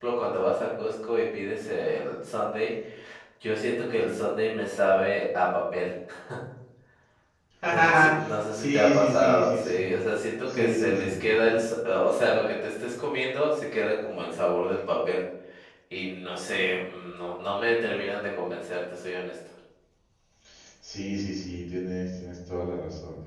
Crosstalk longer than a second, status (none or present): present